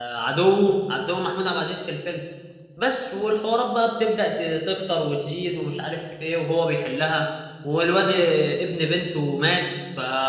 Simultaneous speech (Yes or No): No